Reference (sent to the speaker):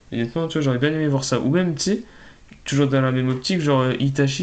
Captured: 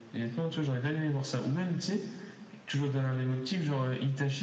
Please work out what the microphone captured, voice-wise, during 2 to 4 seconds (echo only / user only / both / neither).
echo only